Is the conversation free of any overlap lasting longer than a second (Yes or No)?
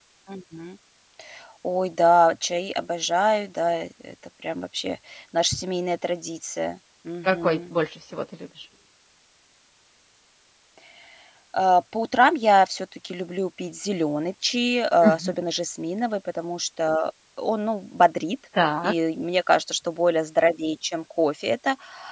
Yes